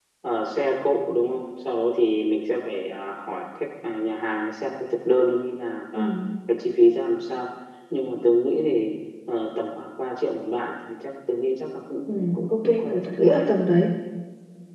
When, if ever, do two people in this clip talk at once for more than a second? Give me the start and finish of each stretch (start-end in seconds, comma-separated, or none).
12.1-13.8